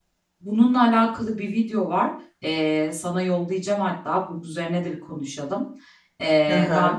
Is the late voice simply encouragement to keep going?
Yes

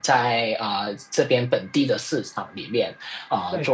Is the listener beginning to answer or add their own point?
No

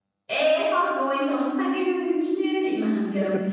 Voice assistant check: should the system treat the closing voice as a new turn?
No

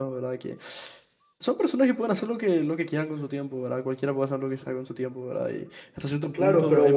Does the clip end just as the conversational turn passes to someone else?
Yes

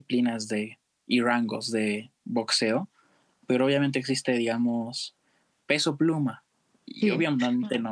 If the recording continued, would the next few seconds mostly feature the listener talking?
No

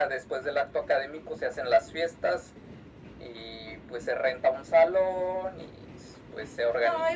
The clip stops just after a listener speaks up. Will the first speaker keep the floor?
No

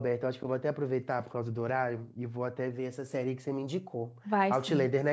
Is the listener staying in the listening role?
No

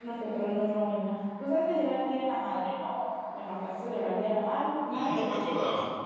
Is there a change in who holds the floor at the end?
Yes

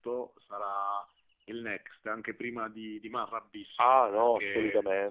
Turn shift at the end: Yes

